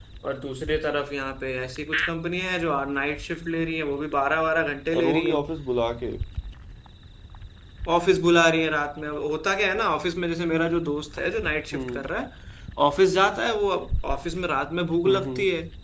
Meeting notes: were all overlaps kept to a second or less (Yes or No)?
Yes